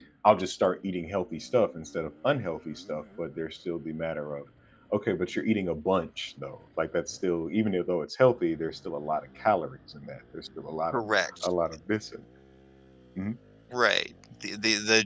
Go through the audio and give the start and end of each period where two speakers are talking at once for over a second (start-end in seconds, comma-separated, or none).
none